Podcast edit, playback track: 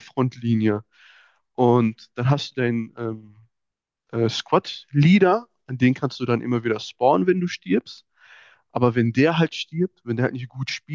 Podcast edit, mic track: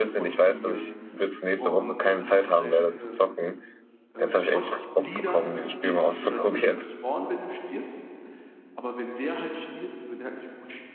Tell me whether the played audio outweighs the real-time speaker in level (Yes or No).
No